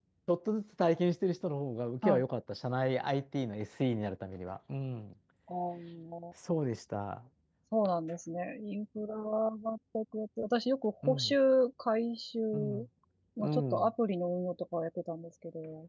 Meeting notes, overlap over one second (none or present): none